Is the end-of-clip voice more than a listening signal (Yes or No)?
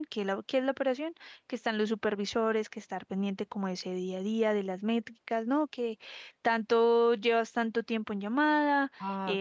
No